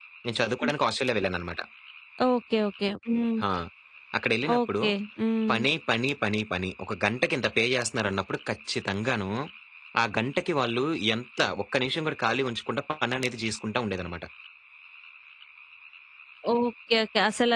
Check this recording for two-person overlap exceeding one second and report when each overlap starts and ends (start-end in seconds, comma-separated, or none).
none